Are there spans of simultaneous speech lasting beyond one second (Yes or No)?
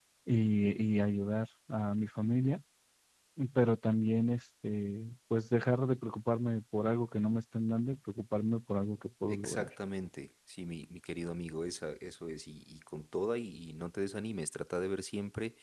No